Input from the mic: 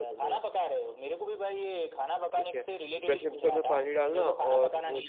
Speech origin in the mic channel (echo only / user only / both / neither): both